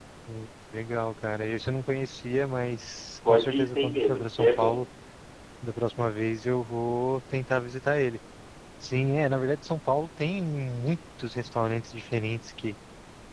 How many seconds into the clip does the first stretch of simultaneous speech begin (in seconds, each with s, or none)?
3.2 s